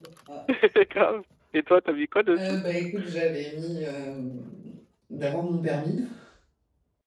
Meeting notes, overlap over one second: none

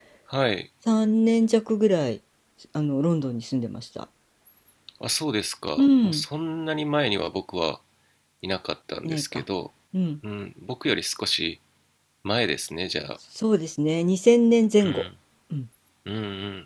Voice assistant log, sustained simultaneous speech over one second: none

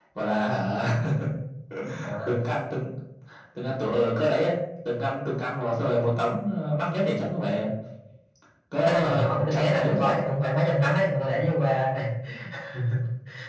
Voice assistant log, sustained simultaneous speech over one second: present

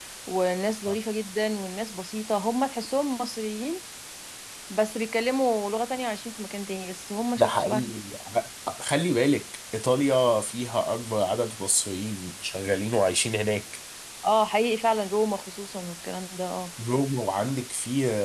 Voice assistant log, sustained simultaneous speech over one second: none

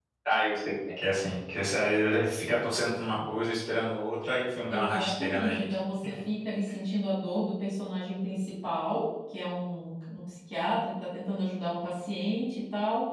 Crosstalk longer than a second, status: present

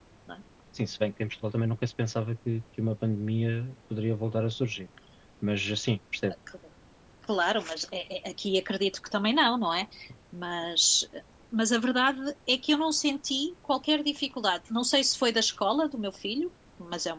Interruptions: none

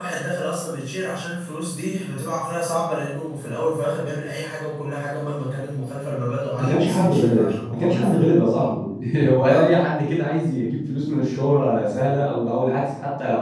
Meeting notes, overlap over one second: present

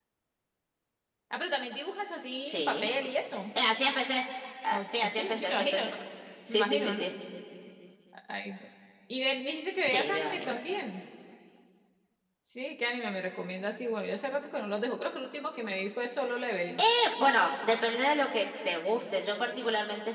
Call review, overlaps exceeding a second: present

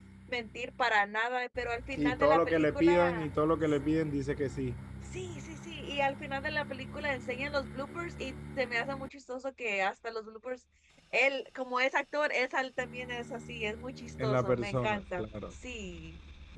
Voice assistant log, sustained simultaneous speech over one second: present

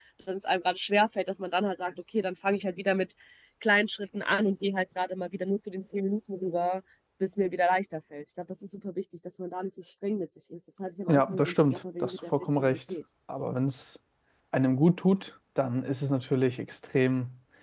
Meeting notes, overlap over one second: present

